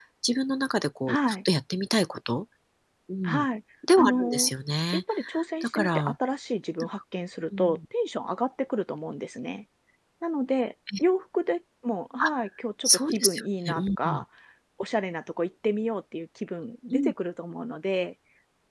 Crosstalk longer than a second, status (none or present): present